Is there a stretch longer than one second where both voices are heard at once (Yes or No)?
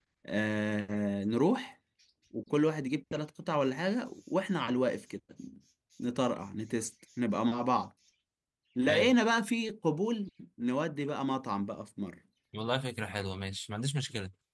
No